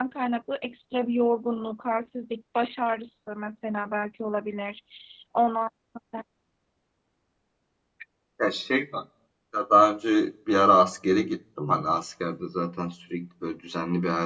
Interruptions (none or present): none